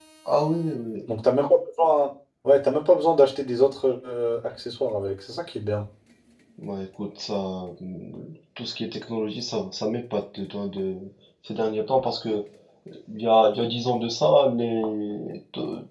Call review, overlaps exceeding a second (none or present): none